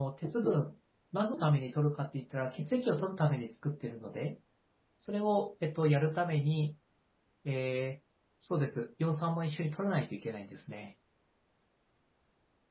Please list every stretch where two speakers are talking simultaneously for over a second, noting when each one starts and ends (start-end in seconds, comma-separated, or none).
none